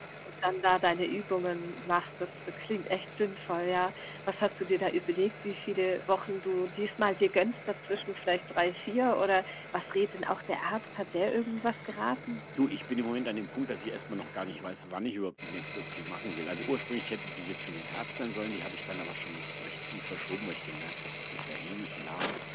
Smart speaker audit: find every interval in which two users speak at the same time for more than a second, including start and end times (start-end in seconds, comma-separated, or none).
none